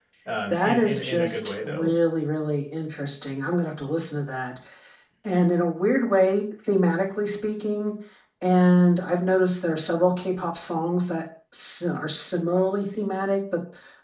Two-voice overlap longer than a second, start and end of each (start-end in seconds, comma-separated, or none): 0.5-1.9